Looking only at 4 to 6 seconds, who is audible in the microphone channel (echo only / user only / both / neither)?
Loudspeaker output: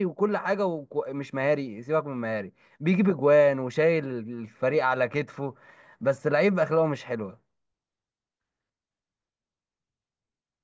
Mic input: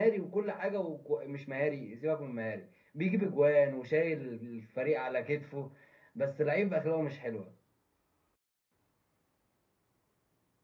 echo only